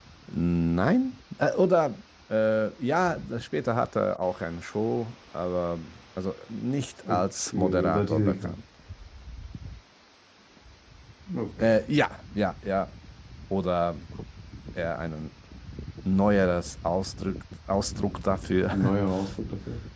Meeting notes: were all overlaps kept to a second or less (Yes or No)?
No